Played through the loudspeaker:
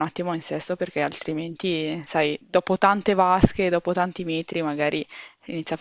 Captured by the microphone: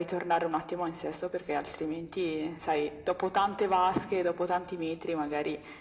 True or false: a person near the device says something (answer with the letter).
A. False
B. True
A